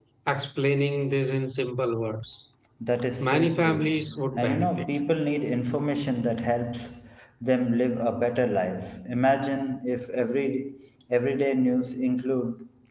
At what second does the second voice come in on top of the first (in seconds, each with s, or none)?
3.2 s